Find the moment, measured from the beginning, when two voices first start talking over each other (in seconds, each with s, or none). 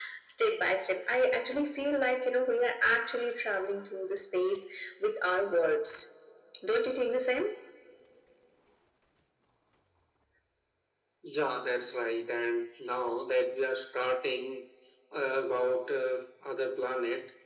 none